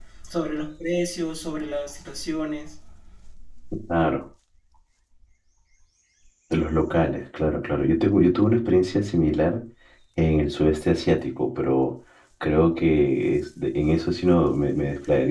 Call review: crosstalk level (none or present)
none